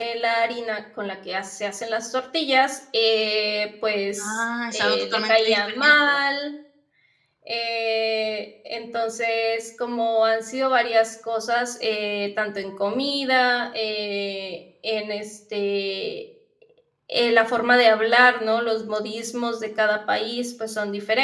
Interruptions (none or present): present